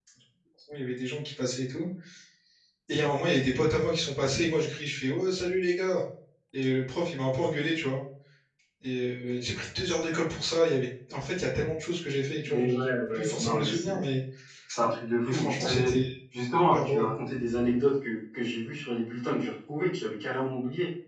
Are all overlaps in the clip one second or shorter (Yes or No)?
No